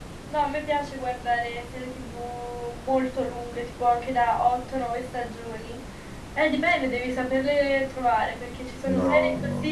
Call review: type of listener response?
listening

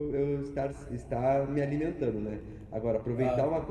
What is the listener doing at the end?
listening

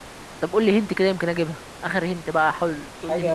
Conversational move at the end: taking over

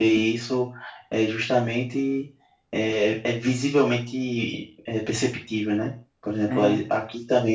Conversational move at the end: listening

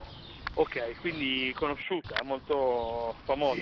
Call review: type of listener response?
taking over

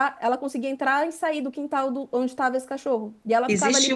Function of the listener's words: taking over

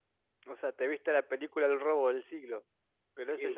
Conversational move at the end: taking over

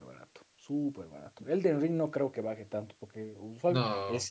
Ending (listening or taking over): listening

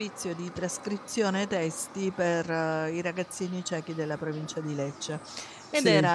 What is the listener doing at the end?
listening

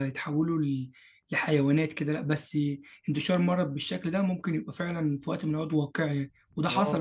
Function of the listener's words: taking over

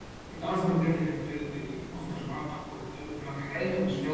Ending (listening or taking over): taking over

